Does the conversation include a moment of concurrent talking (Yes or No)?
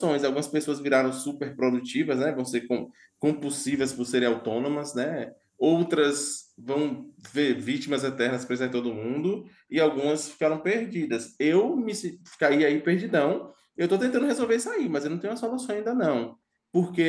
No